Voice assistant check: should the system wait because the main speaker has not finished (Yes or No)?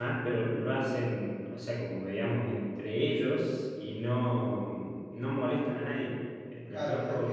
No